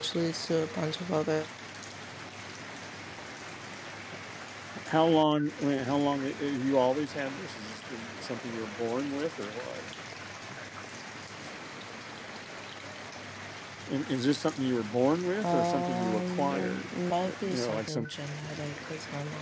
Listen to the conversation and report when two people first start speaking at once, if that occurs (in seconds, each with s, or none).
15.4 s